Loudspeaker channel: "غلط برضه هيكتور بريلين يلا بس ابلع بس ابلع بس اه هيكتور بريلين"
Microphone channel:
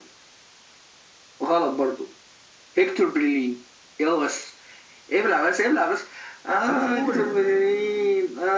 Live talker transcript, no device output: خلاص قول

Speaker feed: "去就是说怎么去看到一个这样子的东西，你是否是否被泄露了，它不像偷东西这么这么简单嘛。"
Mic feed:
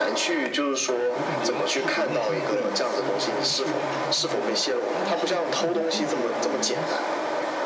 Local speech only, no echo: 我感觉其实国内现在对隐私啊、对数据这方面的，大家其实不是很重视这方面的东西，

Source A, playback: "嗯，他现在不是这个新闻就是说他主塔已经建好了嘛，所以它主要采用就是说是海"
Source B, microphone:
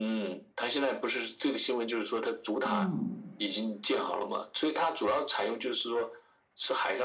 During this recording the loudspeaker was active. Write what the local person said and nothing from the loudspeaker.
嗯

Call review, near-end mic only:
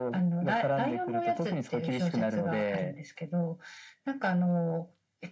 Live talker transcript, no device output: none

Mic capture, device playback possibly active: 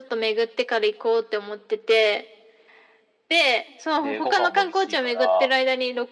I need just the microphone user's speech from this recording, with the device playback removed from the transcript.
で、ご飯も美味しいから、

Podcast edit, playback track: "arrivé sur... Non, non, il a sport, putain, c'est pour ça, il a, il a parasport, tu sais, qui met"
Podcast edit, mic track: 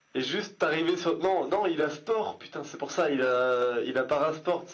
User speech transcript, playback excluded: none

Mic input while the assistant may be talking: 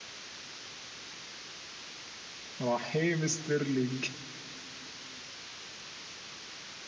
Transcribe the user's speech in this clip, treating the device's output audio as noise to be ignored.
رحيم ستيرلينج

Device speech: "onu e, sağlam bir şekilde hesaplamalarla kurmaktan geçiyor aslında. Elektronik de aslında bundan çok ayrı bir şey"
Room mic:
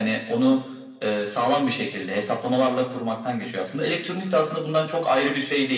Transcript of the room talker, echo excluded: none

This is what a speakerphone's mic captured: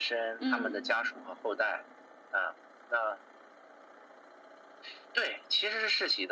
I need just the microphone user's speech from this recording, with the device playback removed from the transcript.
嗯，

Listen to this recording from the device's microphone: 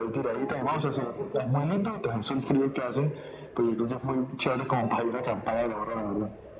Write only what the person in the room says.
Oh, qué rico, porque aquí

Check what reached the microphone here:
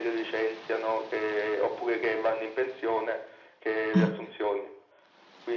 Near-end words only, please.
Ah,

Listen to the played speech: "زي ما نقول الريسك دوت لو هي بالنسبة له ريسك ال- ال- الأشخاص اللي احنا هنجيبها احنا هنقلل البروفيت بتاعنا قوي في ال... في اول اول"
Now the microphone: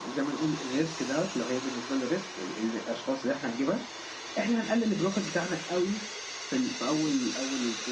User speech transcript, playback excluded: none

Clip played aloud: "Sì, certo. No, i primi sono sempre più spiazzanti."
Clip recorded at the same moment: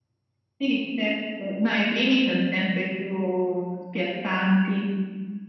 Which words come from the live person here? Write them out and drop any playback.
none

